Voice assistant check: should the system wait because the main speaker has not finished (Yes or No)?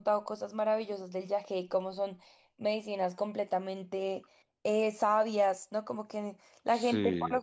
Yes